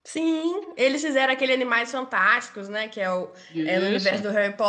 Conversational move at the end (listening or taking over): listening